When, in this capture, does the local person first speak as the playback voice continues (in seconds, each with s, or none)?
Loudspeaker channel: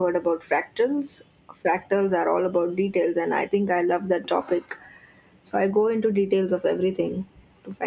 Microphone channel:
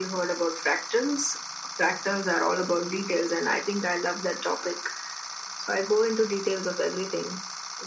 none